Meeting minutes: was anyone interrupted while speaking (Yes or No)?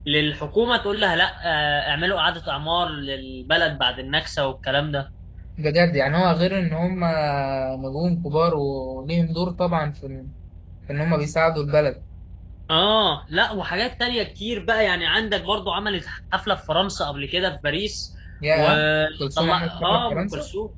Yes